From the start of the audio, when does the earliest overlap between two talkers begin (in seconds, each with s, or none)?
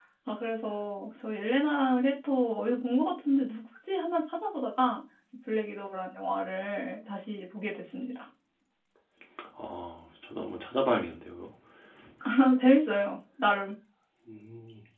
none